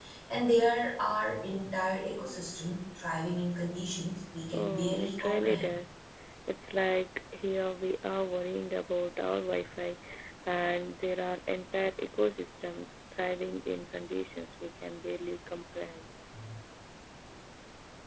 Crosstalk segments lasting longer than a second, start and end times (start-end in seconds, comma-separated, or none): 4.5-5.7